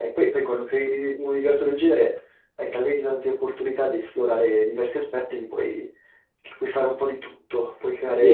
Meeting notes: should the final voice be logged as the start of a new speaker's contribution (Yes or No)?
Yes